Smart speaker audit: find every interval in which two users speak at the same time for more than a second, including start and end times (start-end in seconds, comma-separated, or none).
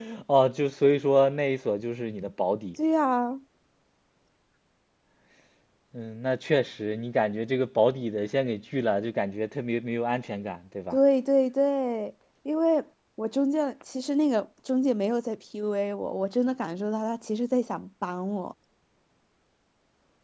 none